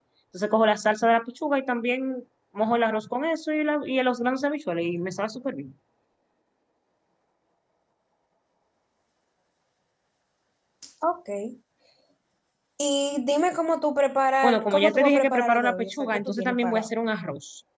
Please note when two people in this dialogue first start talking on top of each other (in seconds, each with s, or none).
14.4 s